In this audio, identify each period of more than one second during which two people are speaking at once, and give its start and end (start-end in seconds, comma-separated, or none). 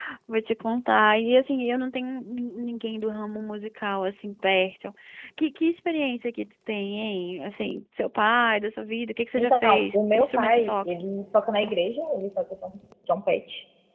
9.4-10.9